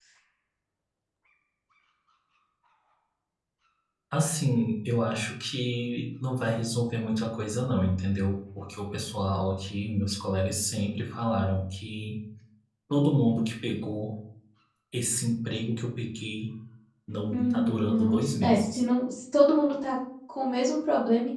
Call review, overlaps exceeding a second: present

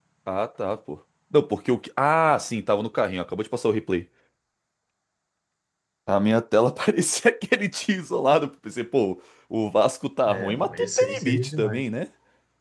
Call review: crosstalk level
present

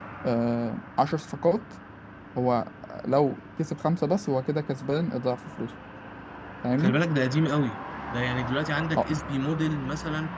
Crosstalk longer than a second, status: none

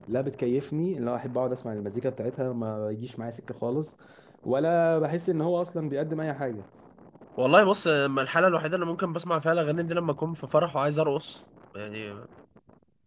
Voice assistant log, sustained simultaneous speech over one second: none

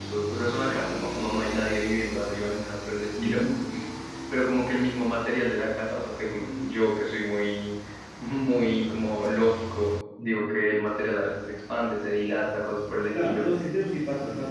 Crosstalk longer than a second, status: none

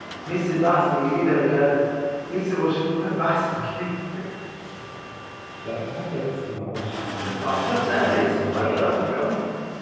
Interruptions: present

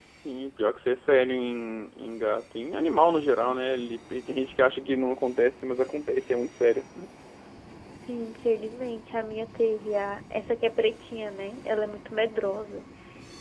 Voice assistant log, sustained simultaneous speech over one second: none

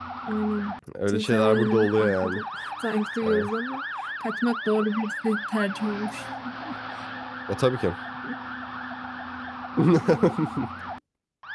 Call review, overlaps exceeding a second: present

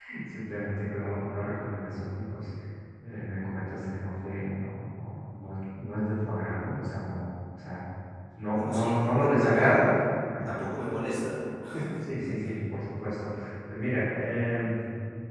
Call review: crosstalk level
present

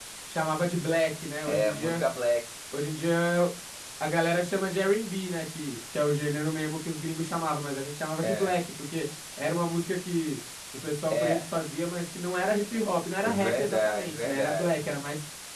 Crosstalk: present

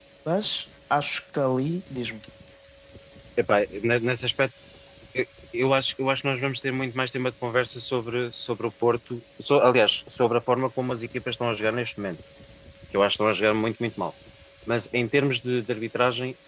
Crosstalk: none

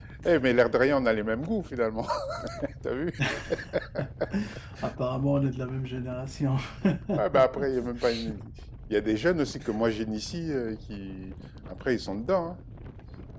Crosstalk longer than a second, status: none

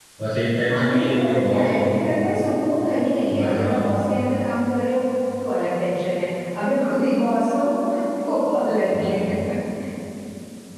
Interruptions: present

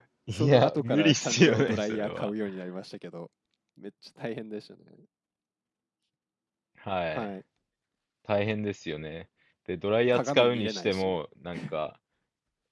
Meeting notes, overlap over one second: present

